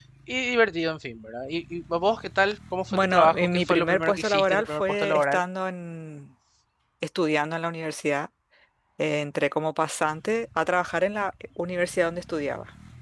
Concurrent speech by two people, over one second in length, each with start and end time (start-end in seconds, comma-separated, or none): 2.9-5.4